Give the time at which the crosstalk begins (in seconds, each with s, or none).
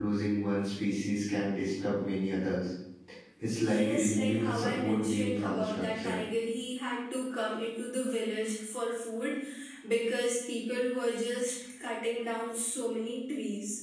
3.6 s